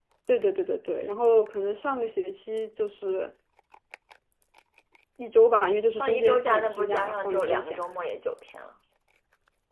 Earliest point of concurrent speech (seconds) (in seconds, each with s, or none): 6.0 s